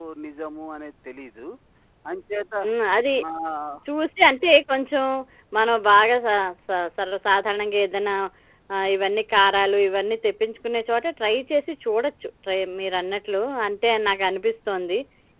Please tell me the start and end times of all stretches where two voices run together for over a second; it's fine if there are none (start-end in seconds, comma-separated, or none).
none